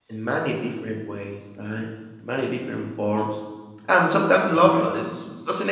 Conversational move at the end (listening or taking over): listening